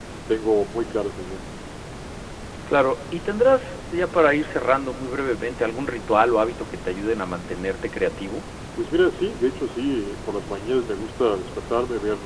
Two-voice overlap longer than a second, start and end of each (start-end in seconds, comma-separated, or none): none